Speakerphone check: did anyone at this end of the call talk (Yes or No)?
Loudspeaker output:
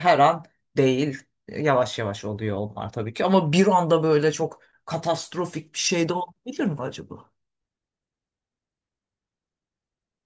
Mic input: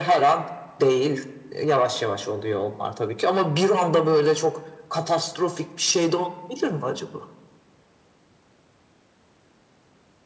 No